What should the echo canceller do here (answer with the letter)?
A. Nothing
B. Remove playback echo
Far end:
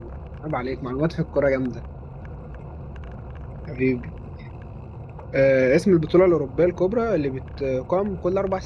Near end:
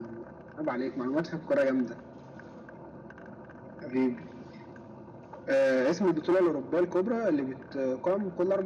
B